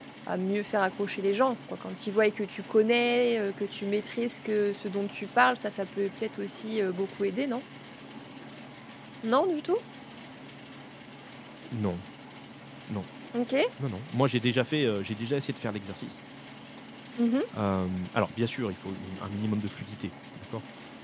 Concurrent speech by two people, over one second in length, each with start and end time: none

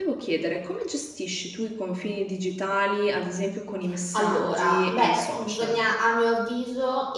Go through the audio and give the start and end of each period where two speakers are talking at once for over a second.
4.1-5.8

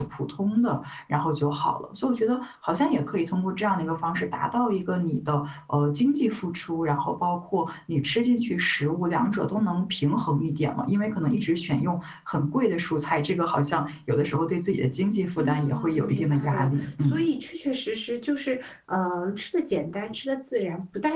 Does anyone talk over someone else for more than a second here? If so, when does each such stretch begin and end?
15.4-17.2

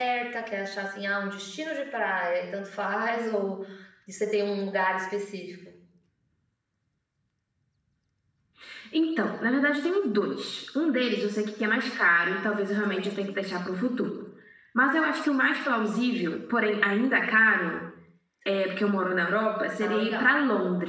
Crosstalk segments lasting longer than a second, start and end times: none

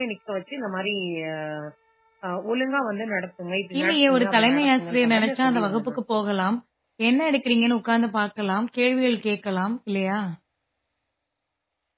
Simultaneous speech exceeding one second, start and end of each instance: 3.8-6.0

